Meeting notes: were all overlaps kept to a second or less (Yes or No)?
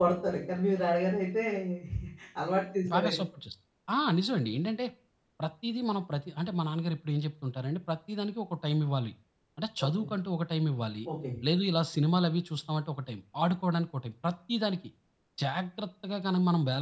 Yes